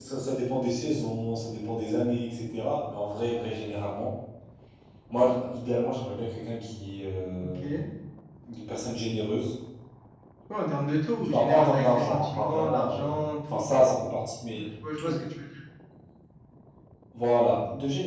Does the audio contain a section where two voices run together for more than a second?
Yes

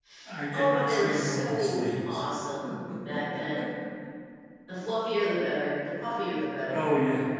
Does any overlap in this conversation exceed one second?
Yes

